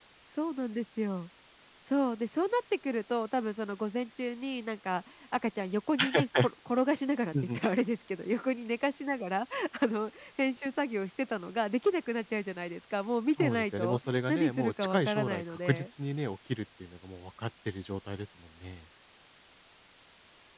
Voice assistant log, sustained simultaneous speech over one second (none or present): present